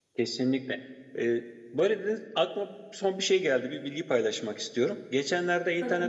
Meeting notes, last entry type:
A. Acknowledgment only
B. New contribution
A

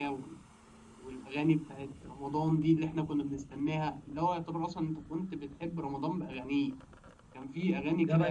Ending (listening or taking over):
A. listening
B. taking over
B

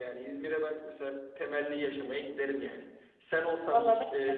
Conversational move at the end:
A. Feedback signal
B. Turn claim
A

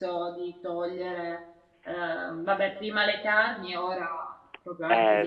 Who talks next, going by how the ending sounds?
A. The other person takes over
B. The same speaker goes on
A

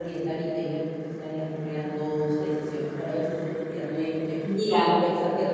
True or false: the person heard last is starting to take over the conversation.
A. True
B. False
B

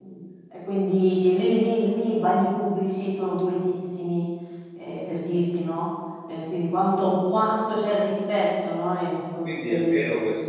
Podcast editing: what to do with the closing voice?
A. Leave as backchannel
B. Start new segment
B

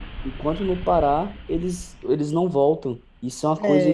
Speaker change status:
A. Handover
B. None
A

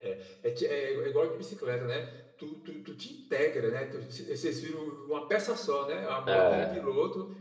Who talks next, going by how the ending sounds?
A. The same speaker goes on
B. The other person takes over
A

